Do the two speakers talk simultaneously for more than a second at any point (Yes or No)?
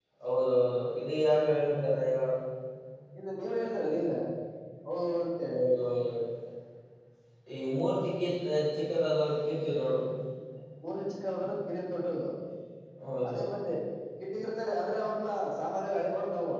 No